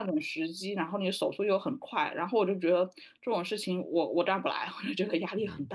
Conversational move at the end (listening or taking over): taking over